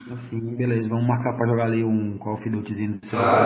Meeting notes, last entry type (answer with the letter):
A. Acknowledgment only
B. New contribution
B